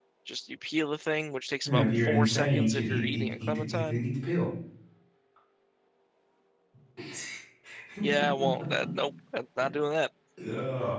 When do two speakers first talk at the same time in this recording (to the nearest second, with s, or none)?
2 s